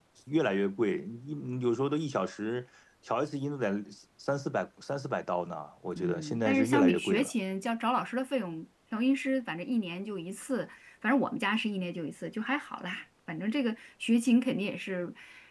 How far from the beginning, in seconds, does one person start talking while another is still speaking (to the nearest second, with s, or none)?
6 s